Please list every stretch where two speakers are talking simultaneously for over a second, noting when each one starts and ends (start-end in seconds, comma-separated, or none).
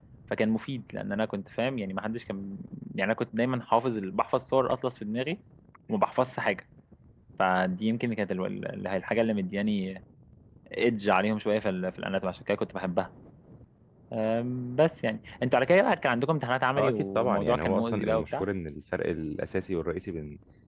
16.8-18.4